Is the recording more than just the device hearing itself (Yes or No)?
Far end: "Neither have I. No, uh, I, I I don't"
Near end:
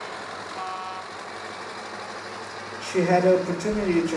Yes